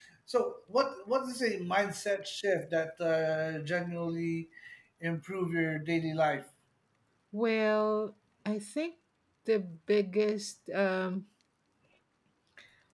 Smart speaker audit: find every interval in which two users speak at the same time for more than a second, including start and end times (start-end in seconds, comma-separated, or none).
none